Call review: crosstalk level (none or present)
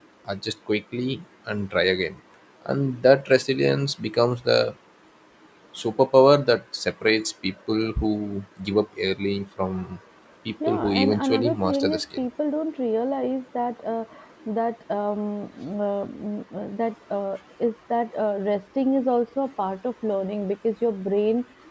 present